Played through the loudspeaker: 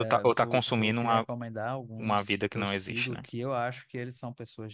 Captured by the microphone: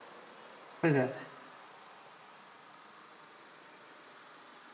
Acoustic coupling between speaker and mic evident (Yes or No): No